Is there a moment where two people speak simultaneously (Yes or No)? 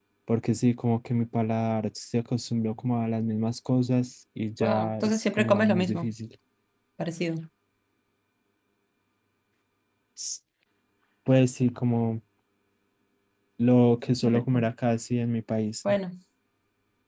Yes